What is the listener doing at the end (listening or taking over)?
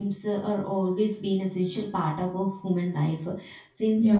listening